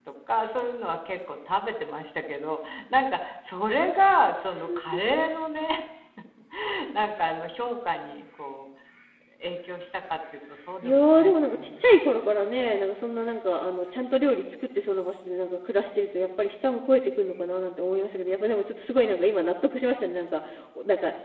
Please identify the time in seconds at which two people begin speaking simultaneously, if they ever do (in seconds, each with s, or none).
10.8 s